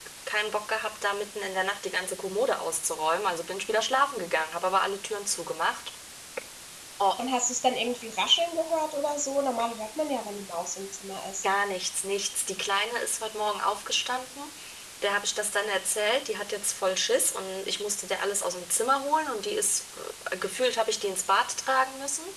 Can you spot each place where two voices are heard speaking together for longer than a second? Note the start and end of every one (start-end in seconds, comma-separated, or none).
none